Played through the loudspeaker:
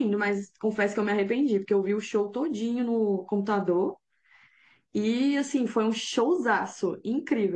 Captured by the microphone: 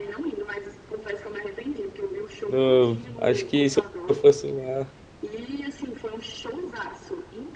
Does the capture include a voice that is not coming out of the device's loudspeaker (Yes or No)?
Yes